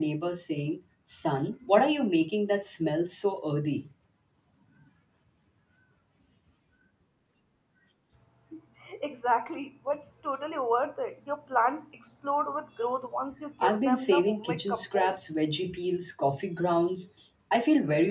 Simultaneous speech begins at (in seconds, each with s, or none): 13.6 s